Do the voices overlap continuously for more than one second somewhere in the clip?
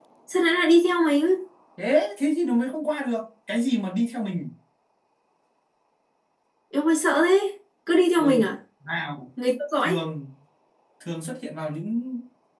No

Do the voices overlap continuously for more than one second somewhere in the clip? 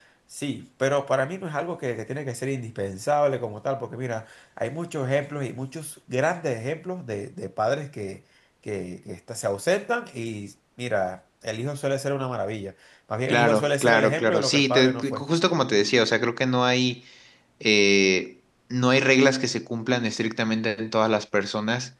Yes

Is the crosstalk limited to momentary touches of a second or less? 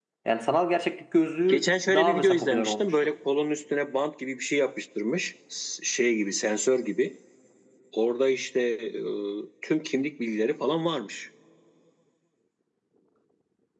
No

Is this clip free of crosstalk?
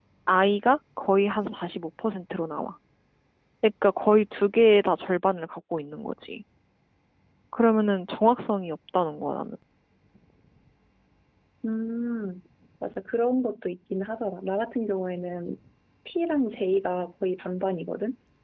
Yes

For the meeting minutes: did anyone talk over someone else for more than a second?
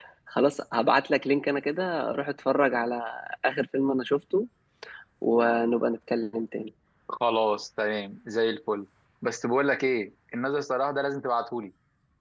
No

